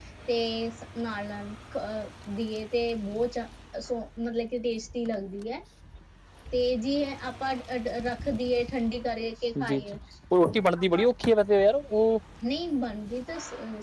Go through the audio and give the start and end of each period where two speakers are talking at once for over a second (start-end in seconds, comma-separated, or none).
none